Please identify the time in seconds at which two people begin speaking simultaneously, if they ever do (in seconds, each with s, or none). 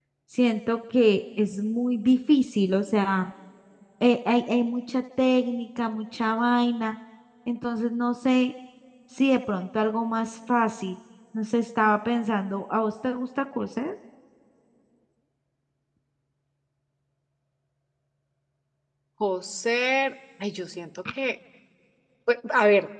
none